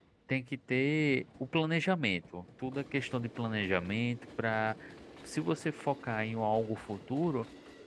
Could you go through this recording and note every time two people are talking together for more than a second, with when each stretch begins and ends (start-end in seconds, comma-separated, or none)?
none